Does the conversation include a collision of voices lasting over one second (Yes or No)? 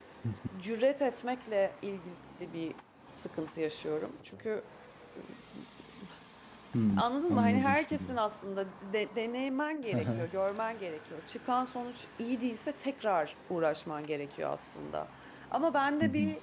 Yes